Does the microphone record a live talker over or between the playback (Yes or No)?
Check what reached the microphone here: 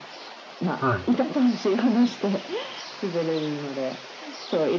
Yes